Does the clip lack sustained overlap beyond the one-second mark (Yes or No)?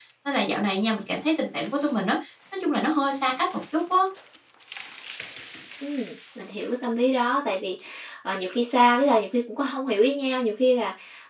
Yes